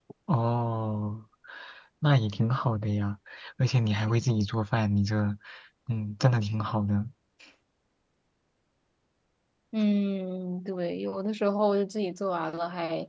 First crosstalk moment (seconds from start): none

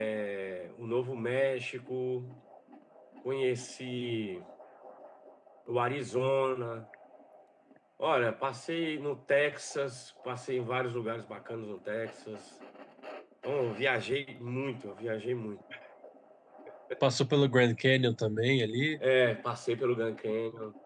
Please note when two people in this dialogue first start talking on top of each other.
none

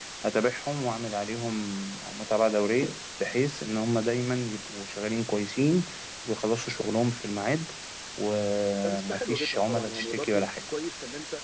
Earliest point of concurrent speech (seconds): 8.8 s

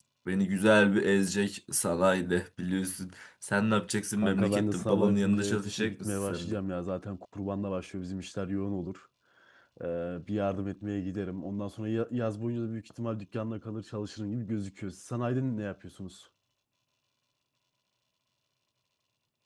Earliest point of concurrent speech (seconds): 4.2 s

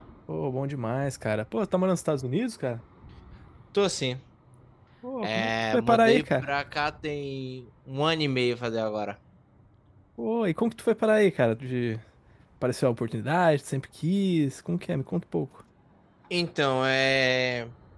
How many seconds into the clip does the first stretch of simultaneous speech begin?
5.2 s

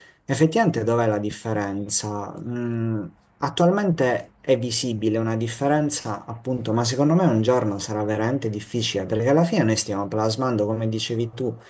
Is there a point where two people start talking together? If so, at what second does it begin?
none

